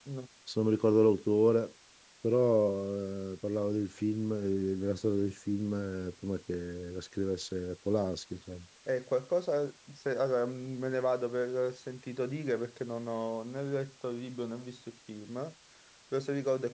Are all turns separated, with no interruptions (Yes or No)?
Yes